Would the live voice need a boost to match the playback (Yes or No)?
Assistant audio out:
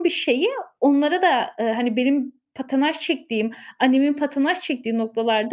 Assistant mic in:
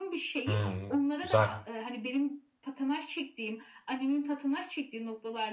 No